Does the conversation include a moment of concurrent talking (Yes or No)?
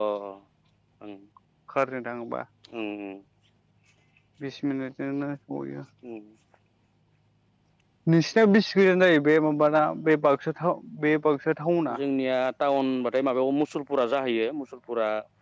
No